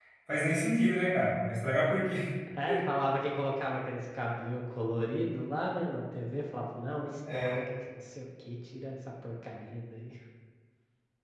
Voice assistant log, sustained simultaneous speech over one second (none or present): none